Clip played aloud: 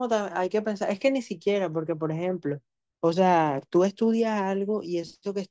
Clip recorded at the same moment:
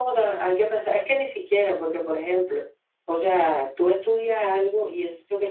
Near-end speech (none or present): none